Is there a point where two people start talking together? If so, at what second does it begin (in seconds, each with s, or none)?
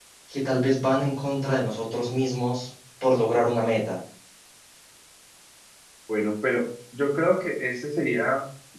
none